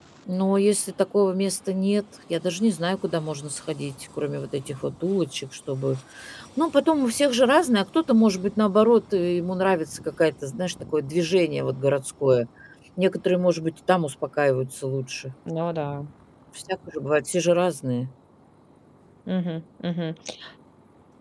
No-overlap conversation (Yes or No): Yes